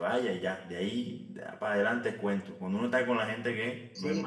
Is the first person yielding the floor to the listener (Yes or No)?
Yes